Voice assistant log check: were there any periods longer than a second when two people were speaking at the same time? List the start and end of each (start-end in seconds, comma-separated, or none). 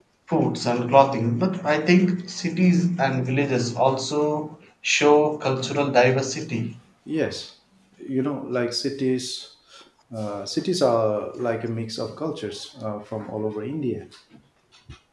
none